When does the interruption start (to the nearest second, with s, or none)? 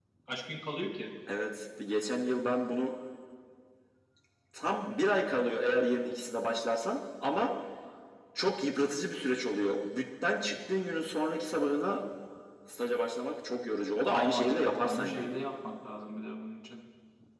14 s